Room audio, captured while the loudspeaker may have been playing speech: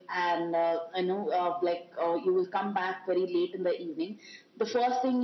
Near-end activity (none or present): none